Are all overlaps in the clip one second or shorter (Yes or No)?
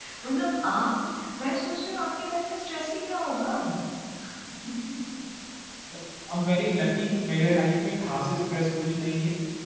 Yes